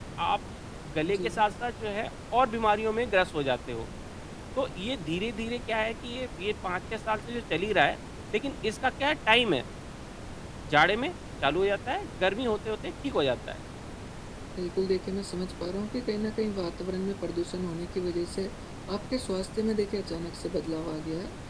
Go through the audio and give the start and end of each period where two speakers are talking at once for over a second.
none

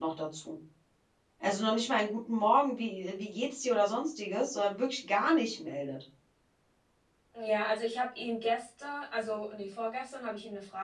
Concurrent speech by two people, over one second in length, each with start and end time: none

